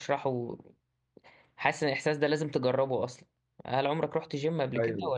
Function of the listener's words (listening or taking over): listening